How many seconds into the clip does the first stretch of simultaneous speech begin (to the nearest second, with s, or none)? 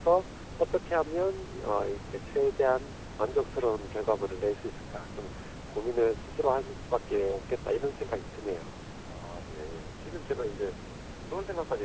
none